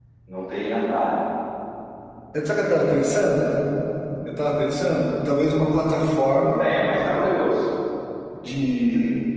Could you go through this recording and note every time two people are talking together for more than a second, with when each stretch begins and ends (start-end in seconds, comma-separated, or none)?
none